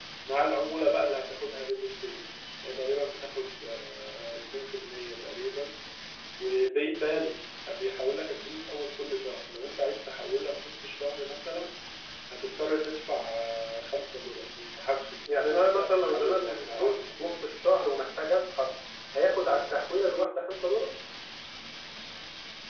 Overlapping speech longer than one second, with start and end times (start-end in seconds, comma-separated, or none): 15.3-17.4